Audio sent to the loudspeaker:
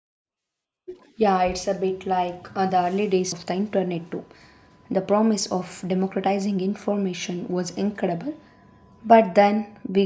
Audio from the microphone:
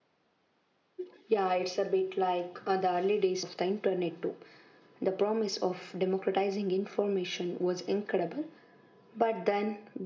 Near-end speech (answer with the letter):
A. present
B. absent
B